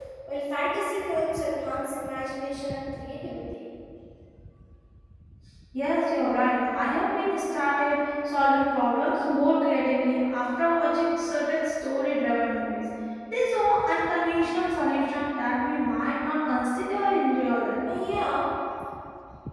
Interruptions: none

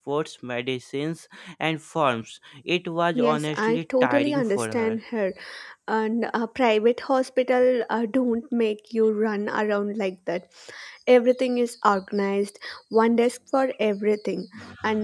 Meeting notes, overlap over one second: present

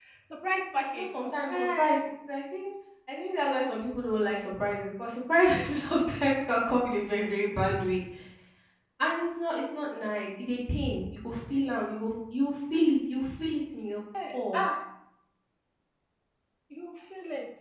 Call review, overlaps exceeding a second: present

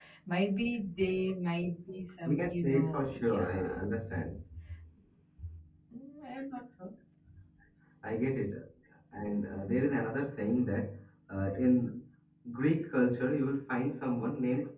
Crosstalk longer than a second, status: present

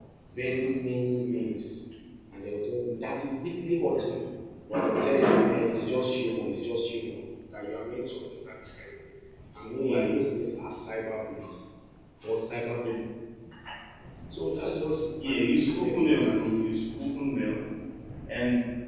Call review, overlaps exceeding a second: present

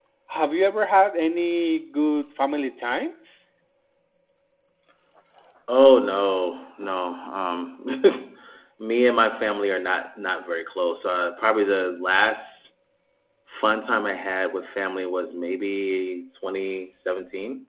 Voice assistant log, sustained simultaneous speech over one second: none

